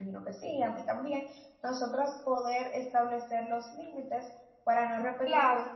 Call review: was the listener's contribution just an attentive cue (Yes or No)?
No